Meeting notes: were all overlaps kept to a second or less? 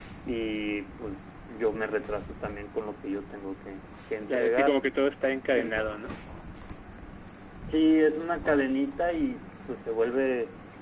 Yes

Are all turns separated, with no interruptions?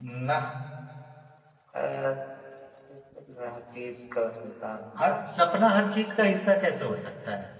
Yes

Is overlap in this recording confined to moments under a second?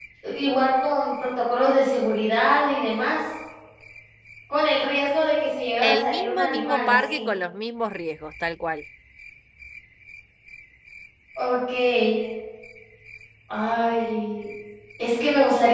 No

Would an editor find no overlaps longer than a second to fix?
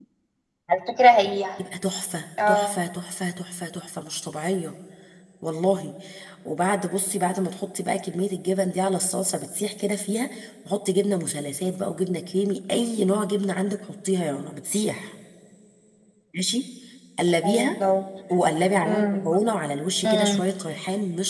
Yes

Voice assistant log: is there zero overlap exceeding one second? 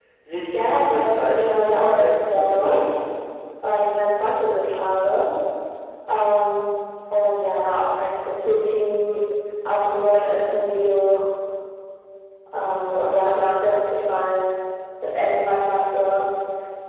No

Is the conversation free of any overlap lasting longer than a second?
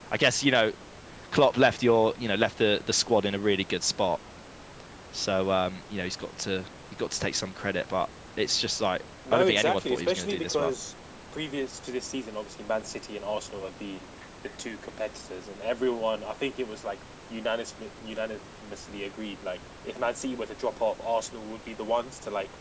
No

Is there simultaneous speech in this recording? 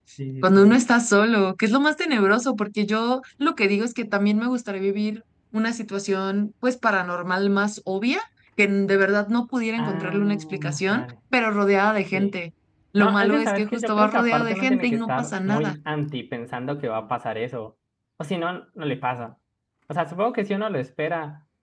Yes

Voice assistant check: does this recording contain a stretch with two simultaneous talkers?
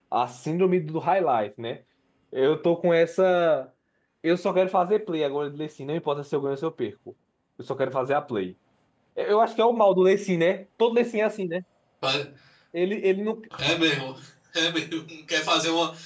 No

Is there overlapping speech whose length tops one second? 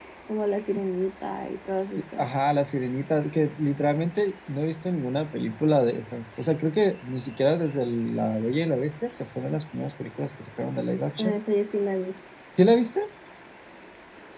No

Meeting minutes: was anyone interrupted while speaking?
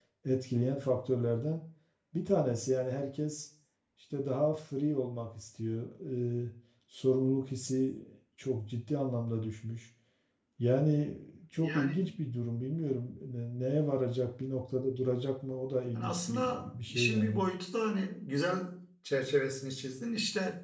Yes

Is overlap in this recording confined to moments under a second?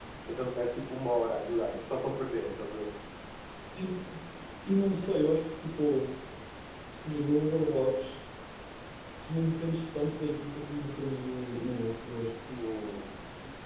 Yes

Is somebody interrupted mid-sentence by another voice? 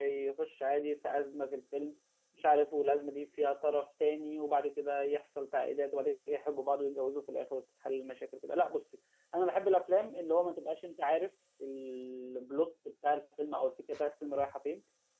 No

